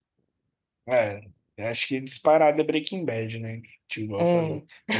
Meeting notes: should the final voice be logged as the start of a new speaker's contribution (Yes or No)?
No